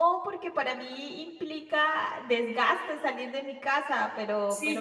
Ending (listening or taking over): taking over